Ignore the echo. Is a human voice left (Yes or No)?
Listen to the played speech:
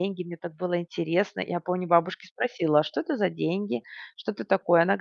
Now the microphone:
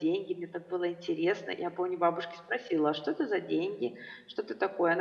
No